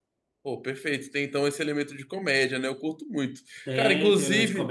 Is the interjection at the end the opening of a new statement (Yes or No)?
Yes